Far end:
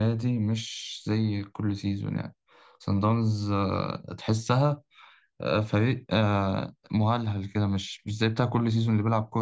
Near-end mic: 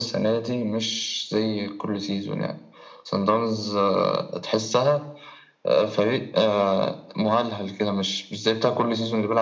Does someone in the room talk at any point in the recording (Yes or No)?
No